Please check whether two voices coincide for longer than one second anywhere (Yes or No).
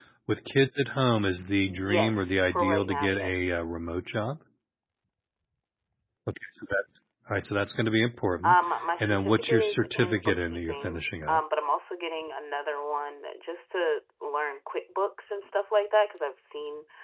Yes